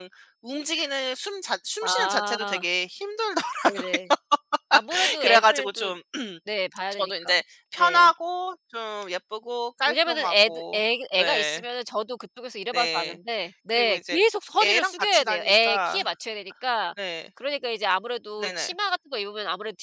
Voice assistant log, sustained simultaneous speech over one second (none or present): present